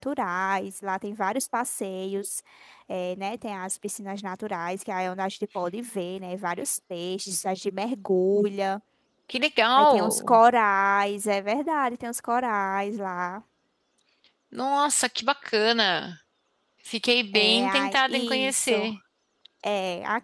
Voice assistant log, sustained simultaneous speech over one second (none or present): present